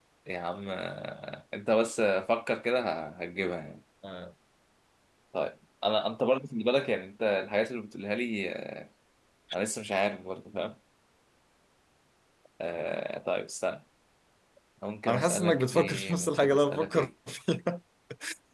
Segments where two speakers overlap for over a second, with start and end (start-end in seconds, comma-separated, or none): 15.1-17.1